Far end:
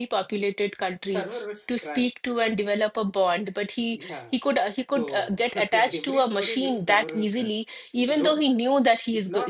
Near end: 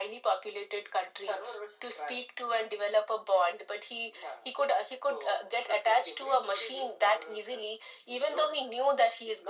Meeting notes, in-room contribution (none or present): none